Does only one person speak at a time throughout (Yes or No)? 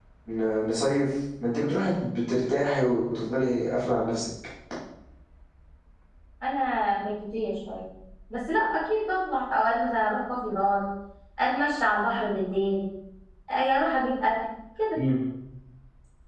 Yes